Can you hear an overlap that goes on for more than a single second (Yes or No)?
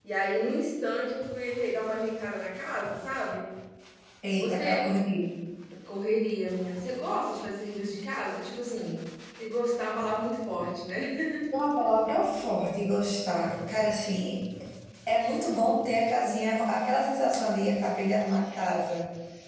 No